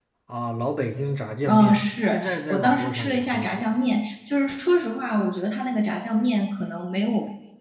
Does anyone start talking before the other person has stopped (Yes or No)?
Yes